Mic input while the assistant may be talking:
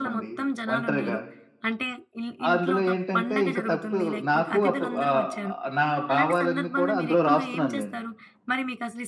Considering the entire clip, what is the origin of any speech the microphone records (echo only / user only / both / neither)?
both